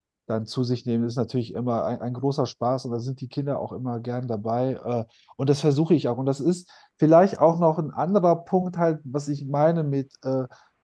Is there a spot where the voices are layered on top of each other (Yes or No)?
No